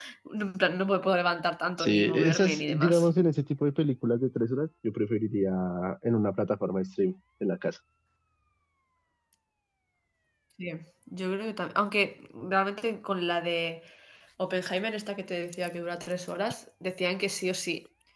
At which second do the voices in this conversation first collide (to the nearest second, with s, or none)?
2 s